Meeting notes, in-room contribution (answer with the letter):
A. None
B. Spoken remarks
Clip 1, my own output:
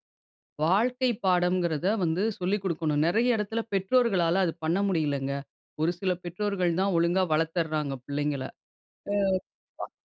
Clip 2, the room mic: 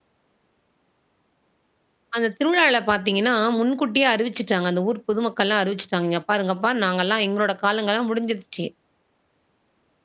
B